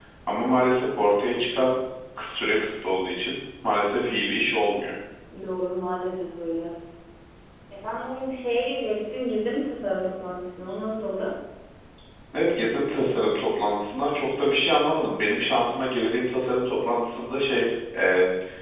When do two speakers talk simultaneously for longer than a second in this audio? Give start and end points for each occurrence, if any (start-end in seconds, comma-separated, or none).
none